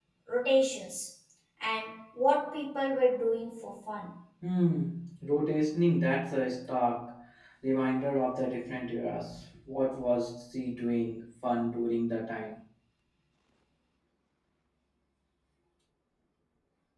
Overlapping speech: No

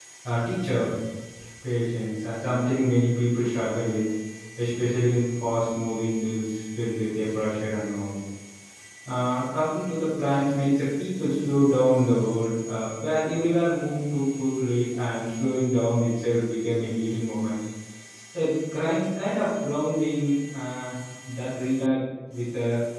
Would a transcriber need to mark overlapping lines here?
No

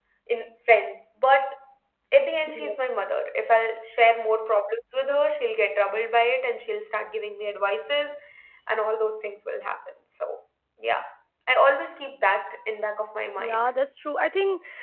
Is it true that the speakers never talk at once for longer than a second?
Yes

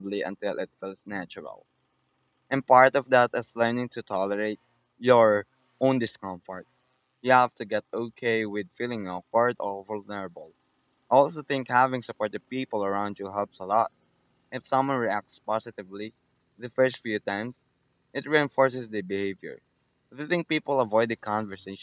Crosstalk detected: No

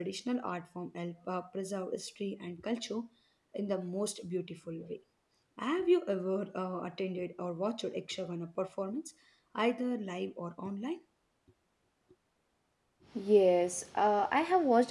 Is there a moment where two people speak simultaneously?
No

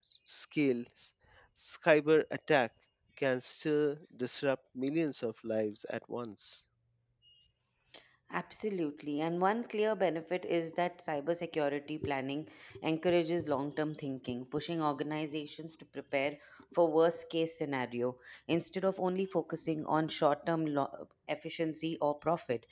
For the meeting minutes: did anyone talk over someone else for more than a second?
No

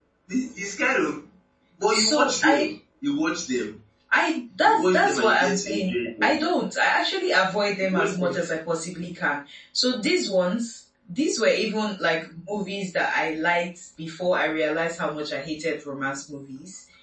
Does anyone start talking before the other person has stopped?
Yes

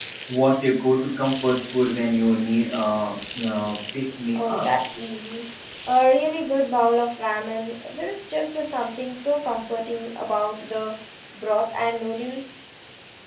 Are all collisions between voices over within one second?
Yes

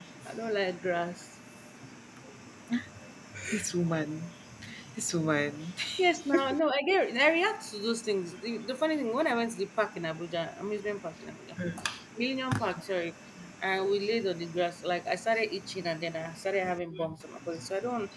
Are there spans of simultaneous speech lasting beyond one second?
No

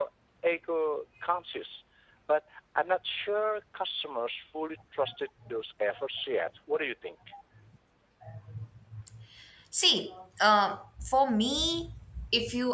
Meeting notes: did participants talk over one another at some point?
No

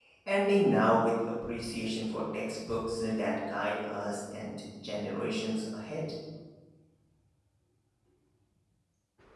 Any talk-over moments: No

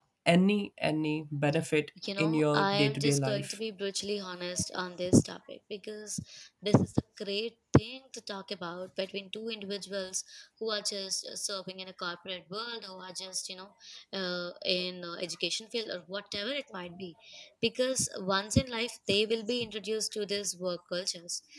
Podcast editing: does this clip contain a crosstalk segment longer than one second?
Yes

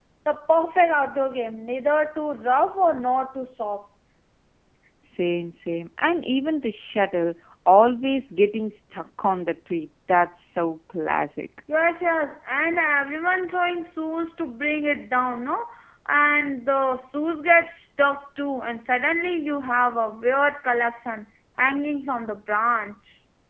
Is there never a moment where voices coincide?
Yes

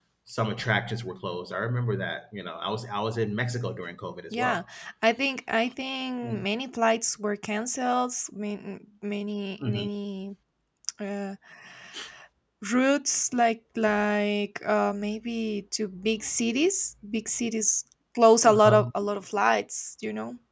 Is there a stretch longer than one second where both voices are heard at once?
No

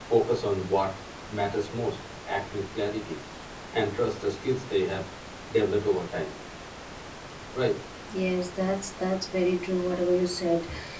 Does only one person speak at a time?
Yes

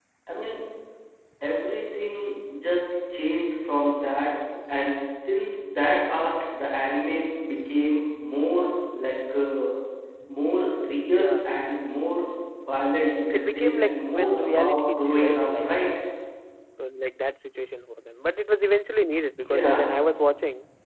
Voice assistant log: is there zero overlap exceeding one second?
No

